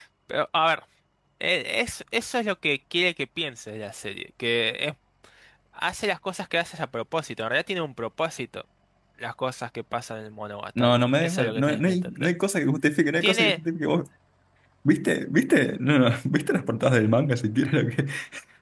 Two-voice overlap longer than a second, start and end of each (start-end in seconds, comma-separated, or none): 10.8-12.3